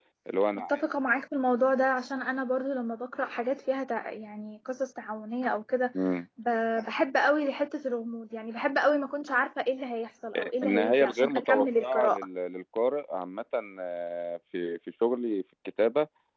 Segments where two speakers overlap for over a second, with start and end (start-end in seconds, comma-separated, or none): 10.6-12.2